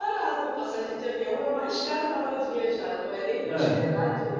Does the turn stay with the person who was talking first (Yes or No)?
Yes